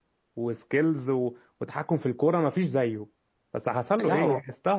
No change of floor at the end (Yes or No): Yes